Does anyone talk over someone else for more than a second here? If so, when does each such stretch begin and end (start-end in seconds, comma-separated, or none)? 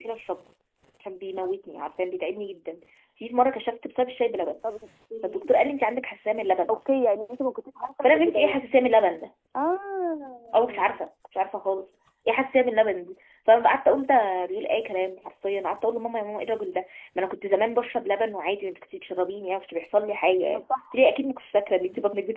none